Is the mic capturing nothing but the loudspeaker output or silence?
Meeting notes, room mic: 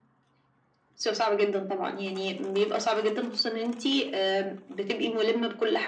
Yes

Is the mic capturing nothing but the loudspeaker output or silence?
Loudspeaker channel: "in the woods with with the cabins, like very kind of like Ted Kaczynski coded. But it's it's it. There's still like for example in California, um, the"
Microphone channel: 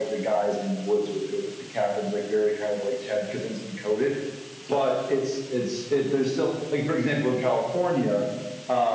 Yes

